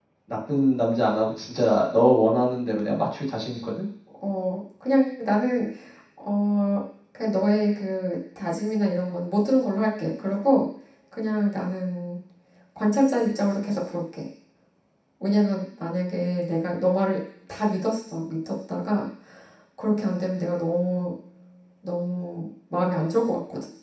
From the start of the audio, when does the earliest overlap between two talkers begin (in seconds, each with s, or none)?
none